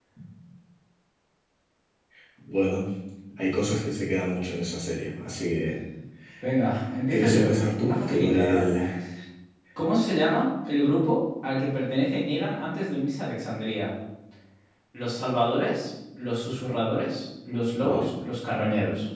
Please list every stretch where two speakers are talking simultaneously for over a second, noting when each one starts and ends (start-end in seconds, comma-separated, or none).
7.1-8.7